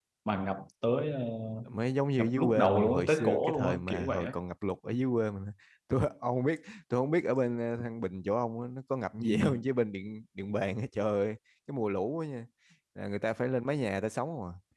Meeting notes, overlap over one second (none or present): present